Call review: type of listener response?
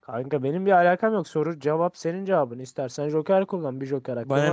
taking over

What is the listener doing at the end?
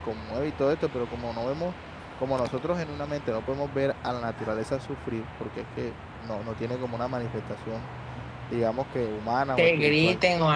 taking over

